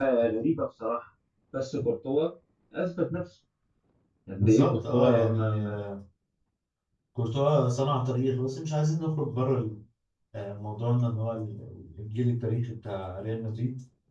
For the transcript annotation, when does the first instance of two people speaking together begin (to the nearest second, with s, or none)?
4 s